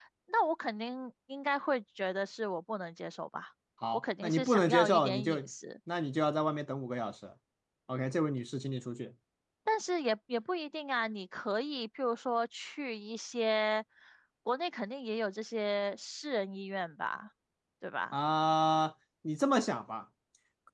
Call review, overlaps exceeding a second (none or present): present